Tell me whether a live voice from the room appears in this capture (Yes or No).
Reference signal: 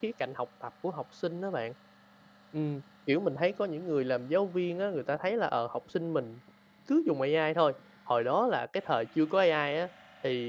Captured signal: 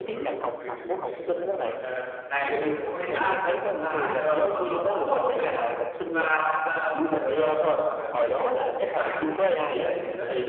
Yes